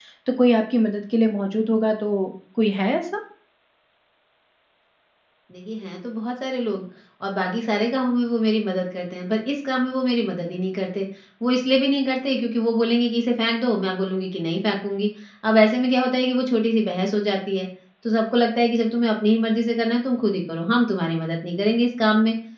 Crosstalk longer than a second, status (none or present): none